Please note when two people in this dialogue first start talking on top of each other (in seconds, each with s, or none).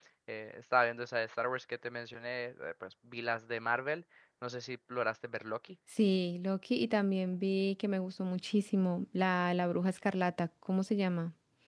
none